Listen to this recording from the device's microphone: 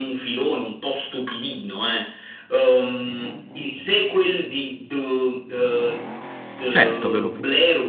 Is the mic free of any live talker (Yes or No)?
No